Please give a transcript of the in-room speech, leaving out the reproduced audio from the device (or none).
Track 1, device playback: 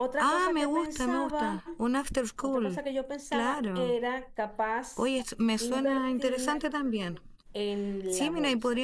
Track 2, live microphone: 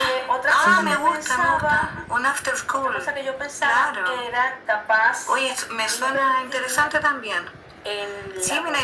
Sí, sí.